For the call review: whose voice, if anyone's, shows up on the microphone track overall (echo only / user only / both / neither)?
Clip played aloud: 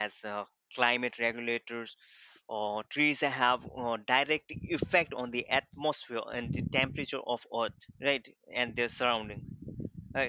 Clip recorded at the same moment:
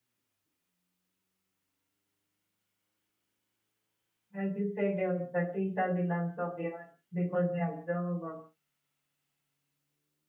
user only